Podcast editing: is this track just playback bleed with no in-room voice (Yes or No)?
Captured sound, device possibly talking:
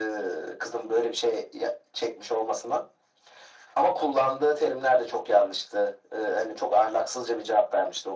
Yes